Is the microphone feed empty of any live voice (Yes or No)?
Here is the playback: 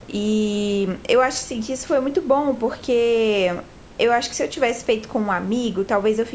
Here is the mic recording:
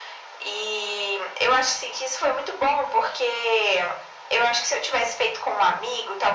Yes